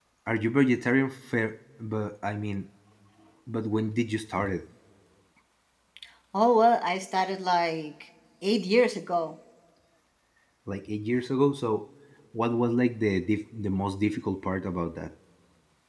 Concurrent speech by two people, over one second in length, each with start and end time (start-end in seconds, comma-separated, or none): none